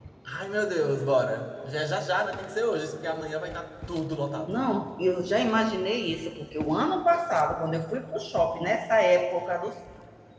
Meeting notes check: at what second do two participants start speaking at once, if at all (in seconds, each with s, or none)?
none